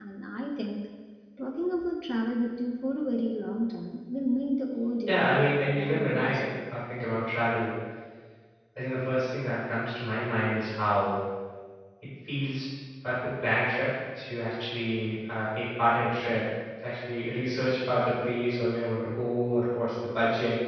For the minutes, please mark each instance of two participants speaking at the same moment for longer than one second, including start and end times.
5.1-6.4

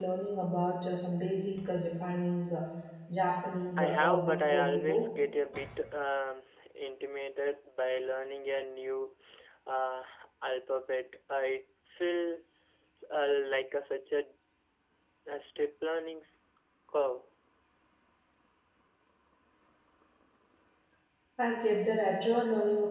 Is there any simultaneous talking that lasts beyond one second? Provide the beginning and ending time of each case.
3.8-5.1

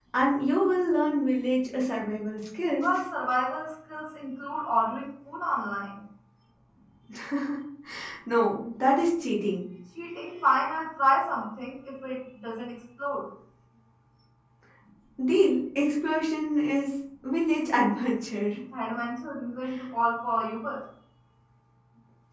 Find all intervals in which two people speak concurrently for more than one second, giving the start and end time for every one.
none

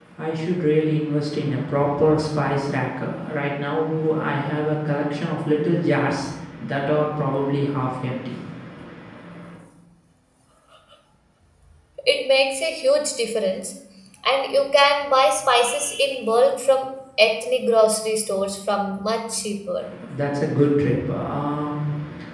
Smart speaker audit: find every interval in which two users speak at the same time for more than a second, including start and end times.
none

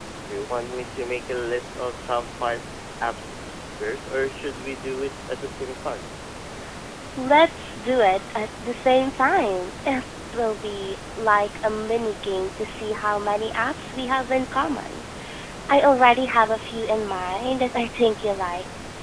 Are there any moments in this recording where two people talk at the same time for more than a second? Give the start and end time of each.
none

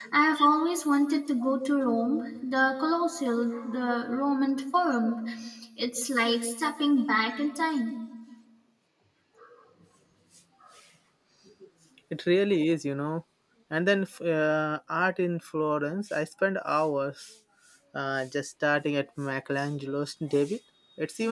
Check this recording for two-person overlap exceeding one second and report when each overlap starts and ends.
none

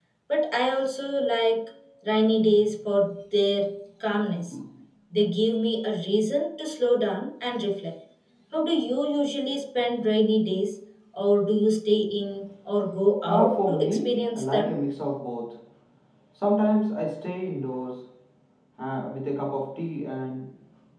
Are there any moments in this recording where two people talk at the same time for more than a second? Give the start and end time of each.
13.2-14.7

